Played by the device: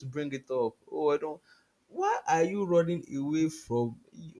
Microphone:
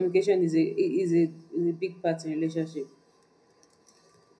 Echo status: none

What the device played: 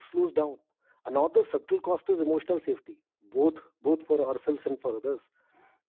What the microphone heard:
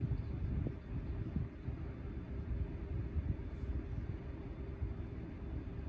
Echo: none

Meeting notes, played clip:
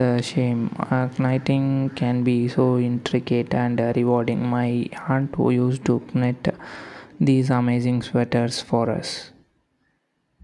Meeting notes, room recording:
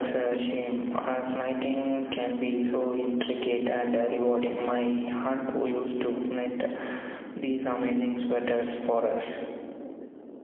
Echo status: present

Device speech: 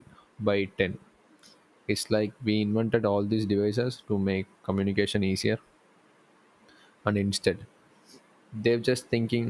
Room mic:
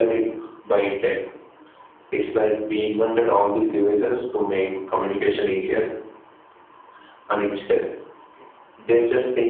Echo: present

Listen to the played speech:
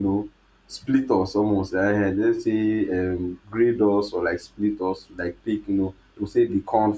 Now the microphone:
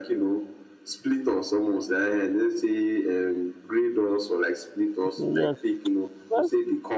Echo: present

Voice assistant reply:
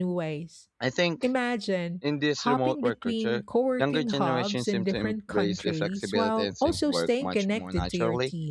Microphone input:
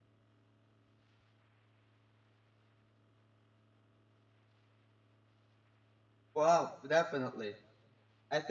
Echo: none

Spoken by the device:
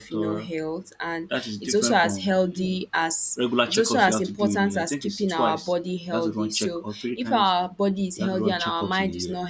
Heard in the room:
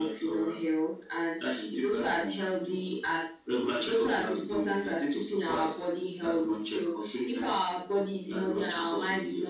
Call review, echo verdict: present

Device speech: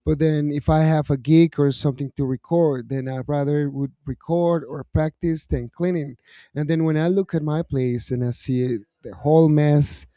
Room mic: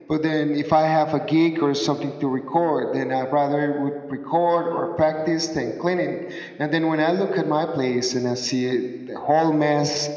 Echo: present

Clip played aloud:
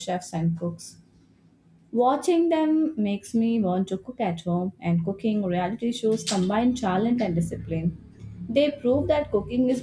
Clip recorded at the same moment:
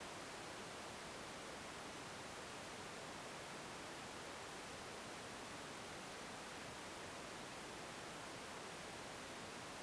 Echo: none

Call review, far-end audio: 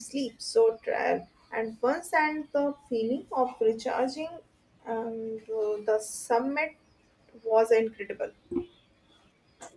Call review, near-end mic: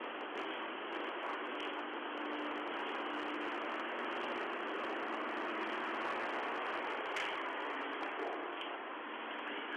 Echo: none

